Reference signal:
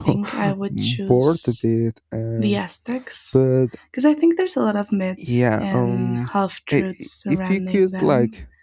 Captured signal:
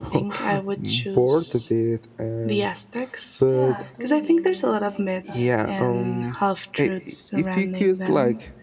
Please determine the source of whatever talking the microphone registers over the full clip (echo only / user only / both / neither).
both